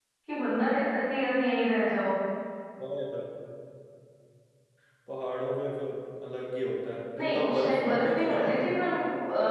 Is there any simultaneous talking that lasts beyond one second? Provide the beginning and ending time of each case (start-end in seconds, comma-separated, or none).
7.2-8.7